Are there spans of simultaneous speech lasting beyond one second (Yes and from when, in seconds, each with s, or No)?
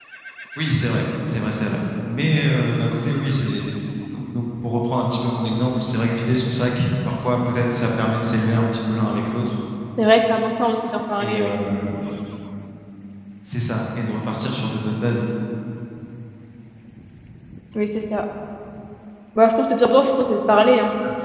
No